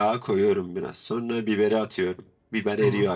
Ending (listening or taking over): listening